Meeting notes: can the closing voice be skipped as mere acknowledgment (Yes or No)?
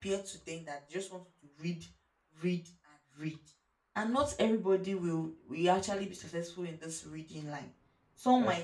Yes